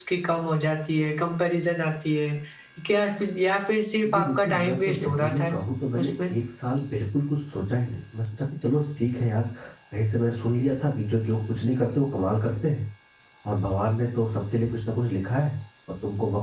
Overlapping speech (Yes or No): Yes